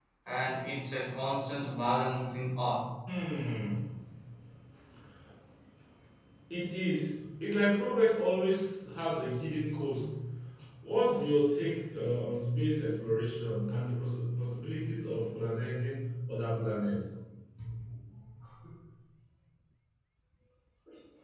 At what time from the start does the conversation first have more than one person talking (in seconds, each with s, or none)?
none